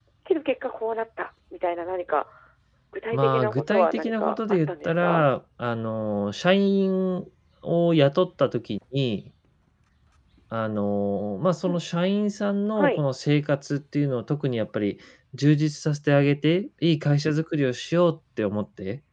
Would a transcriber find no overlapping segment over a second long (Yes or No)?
No